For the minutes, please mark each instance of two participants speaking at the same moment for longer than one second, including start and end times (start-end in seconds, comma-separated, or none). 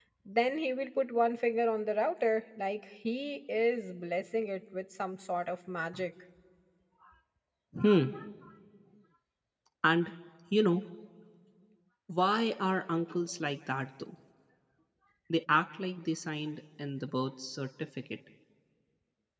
none